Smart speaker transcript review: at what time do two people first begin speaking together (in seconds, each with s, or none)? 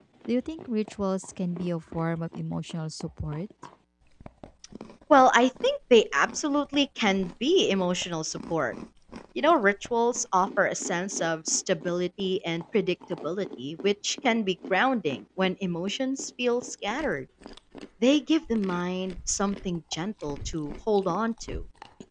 none